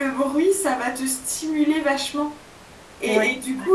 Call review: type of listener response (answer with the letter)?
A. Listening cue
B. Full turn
A